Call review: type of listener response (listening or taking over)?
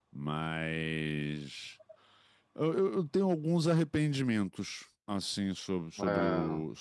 listening